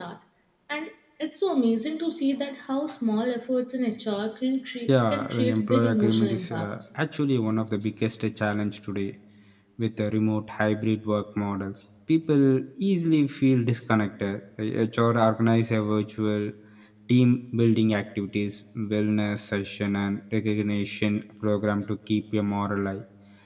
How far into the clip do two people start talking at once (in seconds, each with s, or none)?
4.9 s